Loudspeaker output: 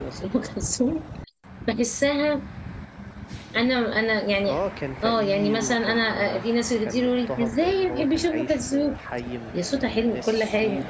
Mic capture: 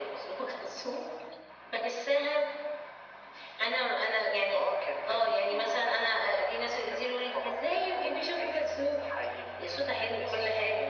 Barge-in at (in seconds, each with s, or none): none